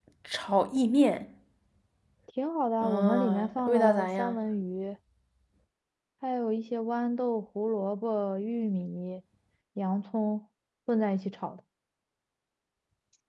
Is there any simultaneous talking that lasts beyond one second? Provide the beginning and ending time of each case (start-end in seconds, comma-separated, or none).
2.8-4.4